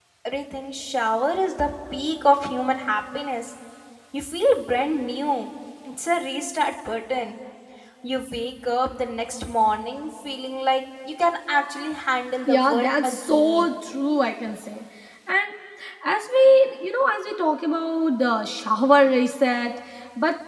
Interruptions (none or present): present